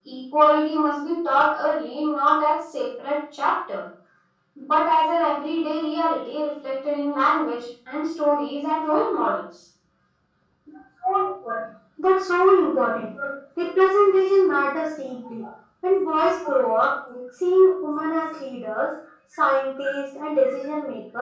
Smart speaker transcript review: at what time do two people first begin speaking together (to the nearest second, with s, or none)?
none